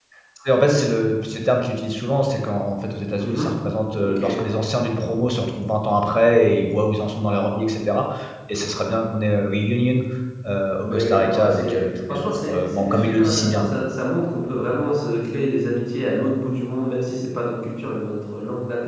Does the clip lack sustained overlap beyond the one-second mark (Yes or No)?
No